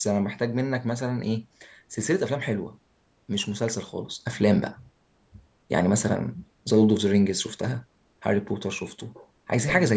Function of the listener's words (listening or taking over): taking over